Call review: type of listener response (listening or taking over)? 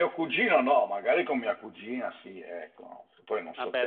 taking over